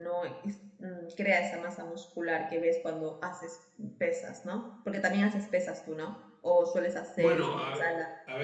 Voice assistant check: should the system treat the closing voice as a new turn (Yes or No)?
Yes